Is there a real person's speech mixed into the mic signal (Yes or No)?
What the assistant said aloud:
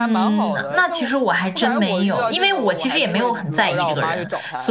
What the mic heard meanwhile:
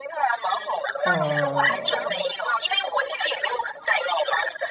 Yes